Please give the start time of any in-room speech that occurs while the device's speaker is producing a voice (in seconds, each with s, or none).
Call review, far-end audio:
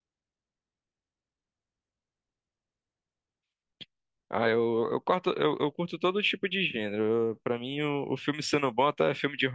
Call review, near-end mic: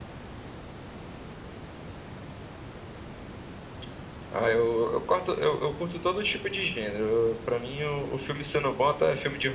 none